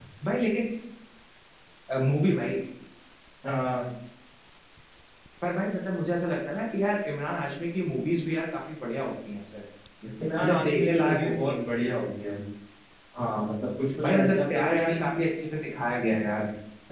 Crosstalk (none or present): present